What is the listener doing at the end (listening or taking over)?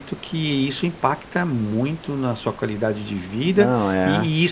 listening